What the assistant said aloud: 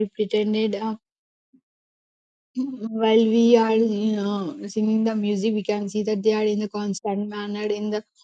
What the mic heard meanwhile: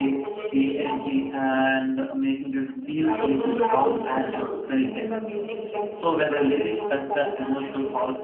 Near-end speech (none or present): present